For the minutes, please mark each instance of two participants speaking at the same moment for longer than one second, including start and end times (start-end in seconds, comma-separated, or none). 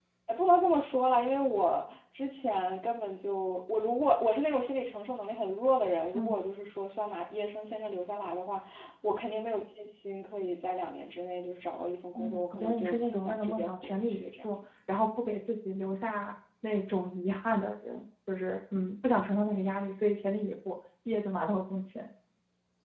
12.2-14.6